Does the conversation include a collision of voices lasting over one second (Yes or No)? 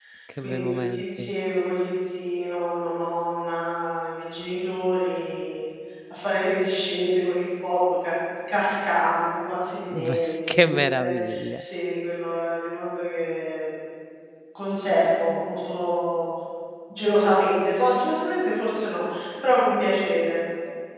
Yes